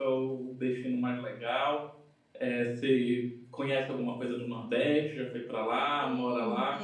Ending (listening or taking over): taking over